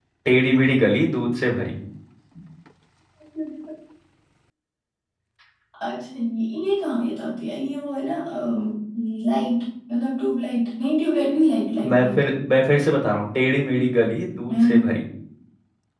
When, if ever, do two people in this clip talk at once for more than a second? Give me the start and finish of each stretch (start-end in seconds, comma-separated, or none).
none